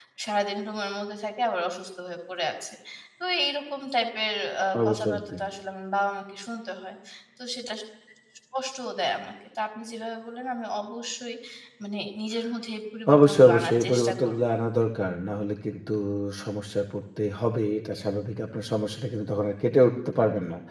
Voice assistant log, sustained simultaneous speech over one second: present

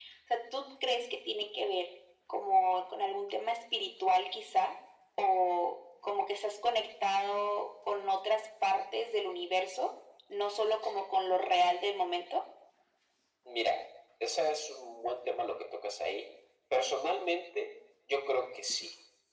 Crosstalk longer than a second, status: none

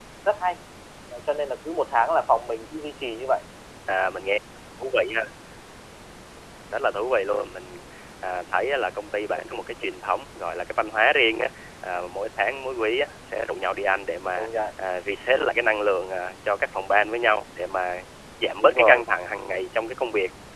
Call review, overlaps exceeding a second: none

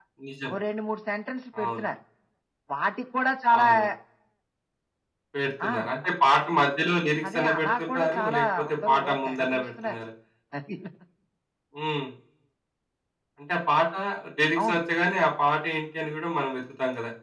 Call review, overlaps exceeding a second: present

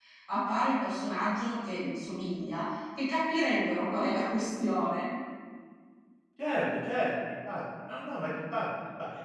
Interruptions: none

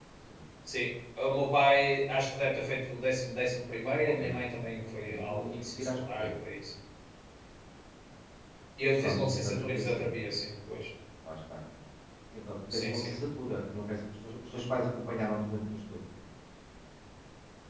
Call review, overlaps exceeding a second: present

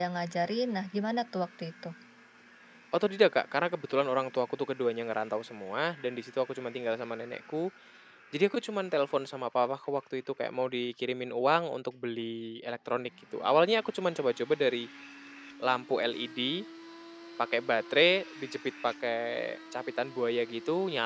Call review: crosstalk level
none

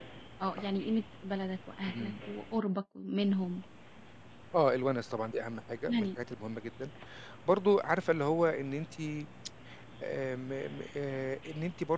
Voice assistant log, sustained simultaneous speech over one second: none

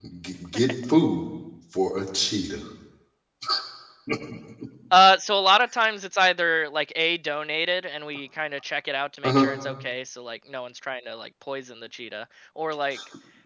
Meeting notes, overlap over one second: none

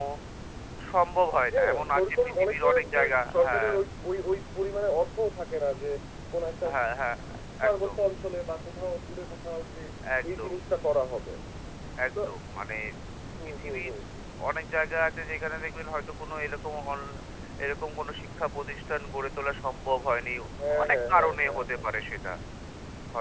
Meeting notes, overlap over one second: present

